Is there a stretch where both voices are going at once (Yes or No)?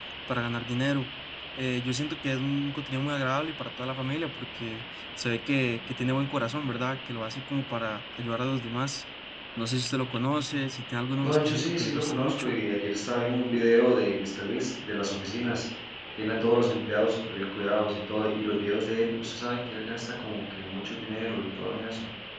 Yes